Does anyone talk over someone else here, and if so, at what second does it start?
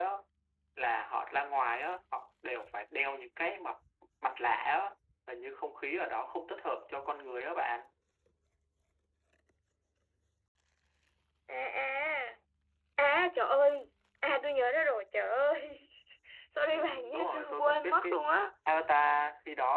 17 s

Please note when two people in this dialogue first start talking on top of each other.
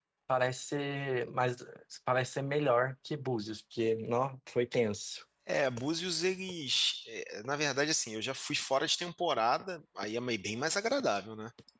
none

